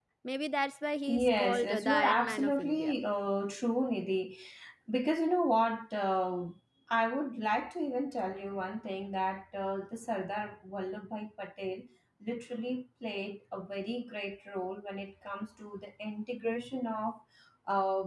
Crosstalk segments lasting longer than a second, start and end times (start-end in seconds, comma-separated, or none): 1.1-2.9